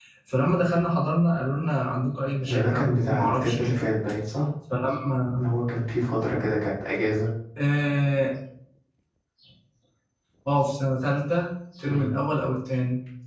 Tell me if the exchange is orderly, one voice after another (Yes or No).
No